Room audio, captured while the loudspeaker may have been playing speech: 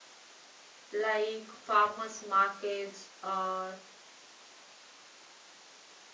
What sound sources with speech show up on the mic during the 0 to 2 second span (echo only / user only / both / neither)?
user only